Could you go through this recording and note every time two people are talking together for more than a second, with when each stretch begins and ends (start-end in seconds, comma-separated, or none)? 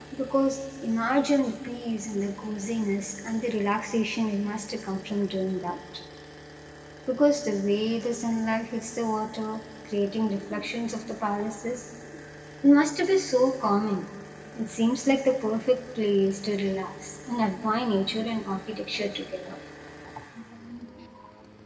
none